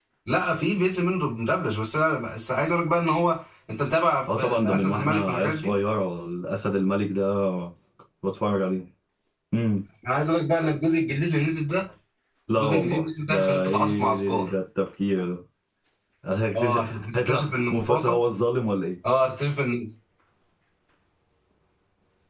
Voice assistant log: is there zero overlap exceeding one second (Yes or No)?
No